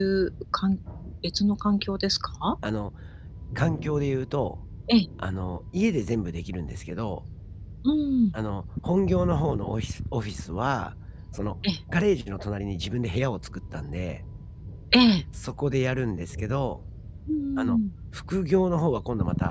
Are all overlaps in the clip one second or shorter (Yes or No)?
Yes